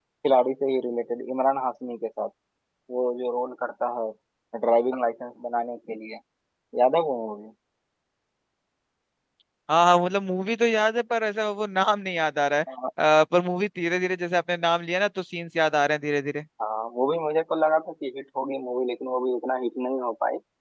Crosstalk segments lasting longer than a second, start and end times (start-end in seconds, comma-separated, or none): none